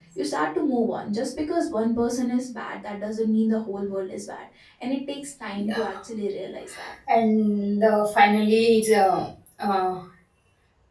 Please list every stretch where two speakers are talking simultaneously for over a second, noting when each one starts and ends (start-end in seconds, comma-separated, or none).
none